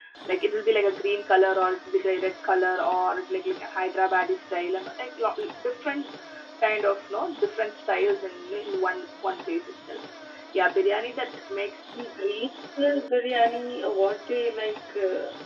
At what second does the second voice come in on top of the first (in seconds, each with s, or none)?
none